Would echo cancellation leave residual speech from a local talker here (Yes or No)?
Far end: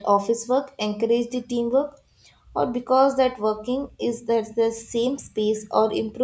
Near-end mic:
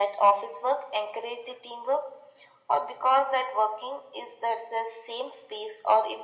No